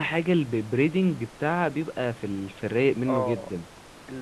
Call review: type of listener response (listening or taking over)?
taking over